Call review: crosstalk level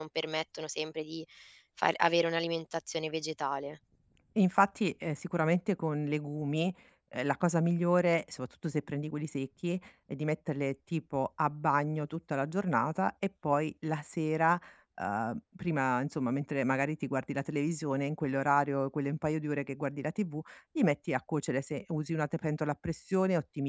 none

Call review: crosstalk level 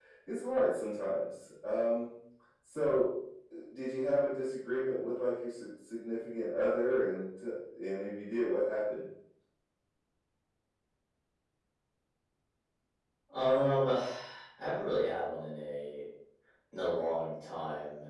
none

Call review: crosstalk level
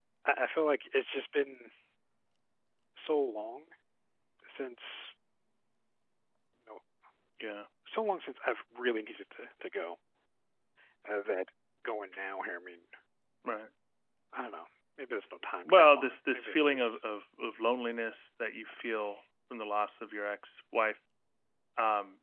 present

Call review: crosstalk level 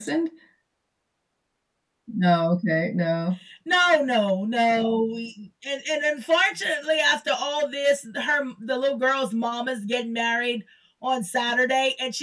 none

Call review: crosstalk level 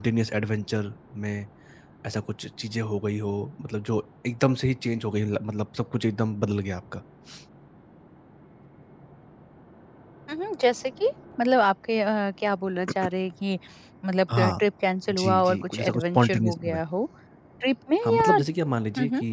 present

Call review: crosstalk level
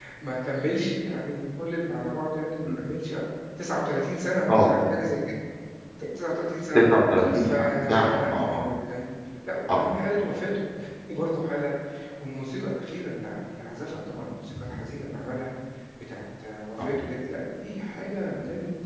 present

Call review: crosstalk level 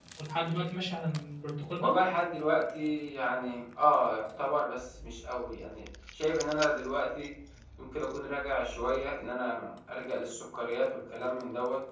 none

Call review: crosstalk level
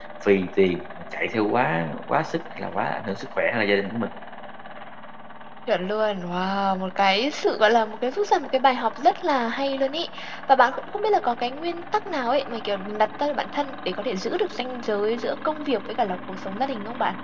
none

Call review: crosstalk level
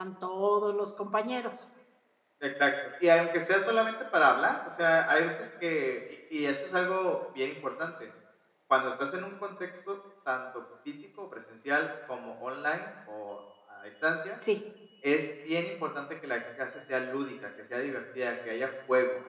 none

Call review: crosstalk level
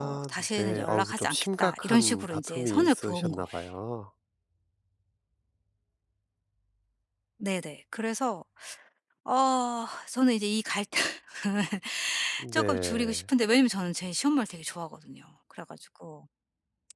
present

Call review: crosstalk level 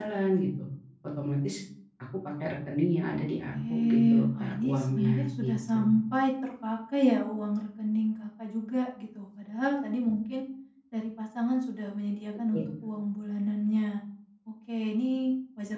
present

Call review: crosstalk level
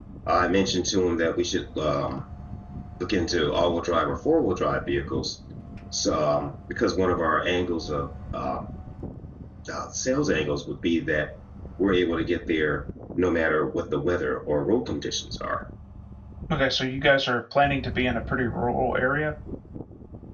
none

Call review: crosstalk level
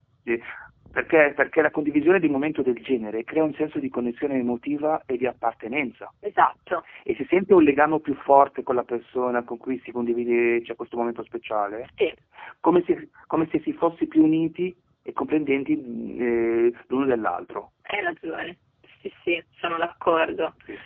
none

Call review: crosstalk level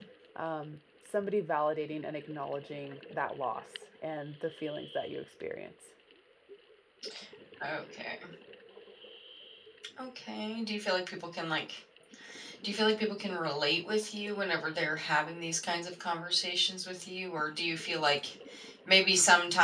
none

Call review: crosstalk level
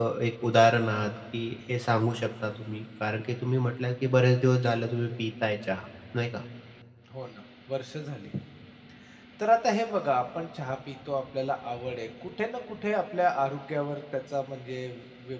none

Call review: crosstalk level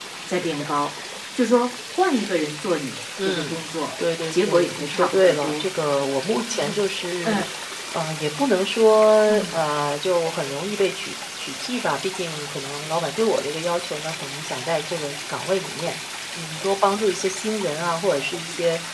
present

